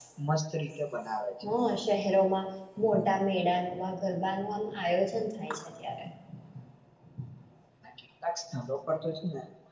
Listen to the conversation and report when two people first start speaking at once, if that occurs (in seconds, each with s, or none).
none